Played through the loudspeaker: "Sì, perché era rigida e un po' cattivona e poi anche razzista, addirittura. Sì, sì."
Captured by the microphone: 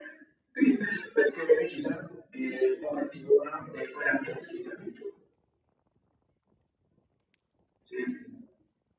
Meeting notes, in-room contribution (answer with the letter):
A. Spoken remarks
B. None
B